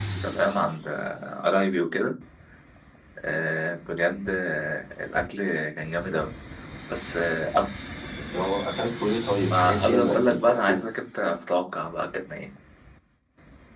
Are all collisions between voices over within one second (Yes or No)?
No